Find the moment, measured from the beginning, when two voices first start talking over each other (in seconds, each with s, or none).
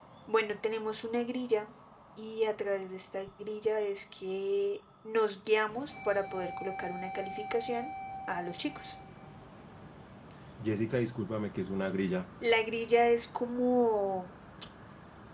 none